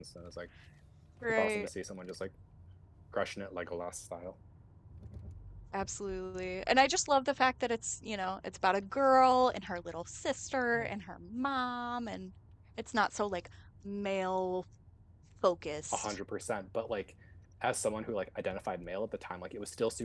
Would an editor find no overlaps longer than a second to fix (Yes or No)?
Yes